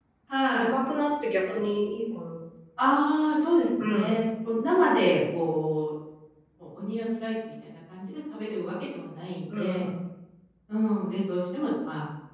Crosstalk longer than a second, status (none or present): none